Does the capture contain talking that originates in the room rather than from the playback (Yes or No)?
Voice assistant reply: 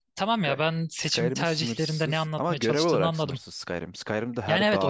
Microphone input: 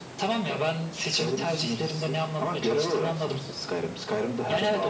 No